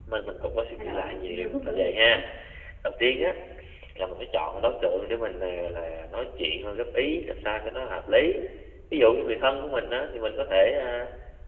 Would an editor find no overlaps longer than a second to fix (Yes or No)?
No